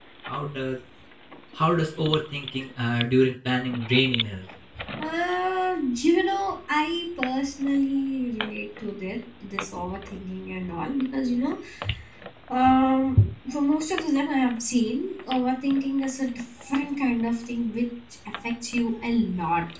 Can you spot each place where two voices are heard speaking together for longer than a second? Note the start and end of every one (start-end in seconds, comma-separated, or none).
none